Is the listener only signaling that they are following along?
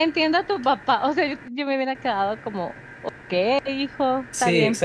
No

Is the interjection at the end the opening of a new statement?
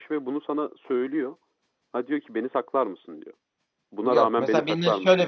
Yes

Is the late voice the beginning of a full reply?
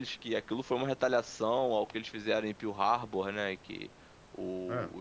No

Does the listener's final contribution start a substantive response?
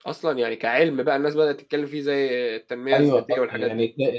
Yes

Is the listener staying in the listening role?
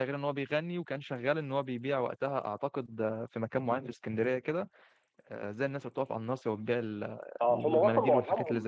No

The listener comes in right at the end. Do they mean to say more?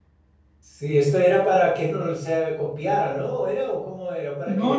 Yes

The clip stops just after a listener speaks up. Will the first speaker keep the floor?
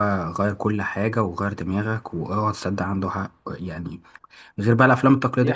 Yes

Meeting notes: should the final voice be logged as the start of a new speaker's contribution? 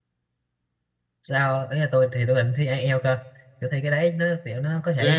No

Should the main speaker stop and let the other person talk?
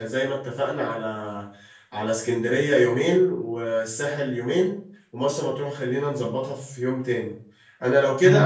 No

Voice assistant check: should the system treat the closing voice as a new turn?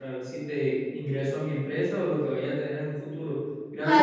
Yes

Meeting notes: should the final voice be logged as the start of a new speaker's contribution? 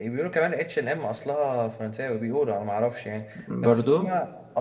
No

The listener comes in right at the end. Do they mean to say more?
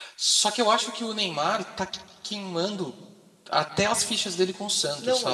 Yes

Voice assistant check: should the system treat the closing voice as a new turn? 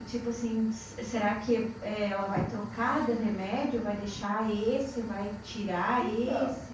Yes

